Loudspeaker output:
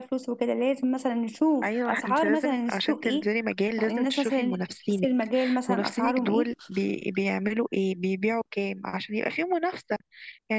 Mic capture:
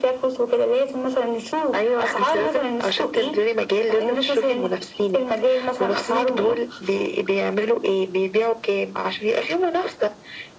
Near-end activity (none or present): none